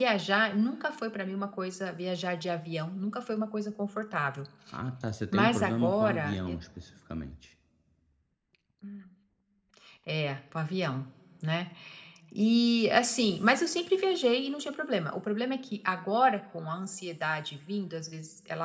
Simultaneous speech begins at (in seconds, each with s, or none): 5.3 s